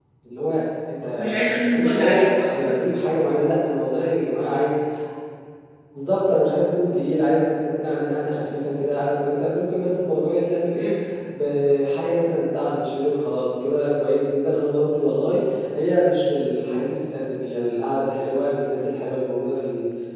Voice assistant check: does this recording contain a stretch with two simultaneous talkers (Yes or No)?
Yes